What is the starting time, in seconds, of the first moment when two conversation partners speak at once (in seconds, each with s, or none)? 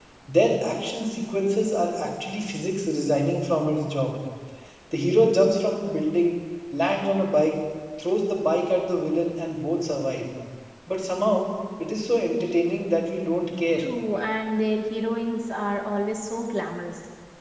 none